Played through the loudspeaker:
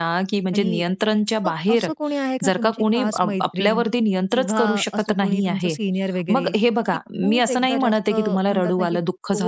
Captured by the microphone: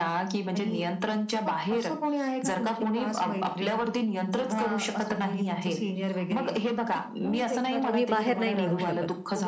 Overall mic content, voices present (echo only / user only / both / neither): both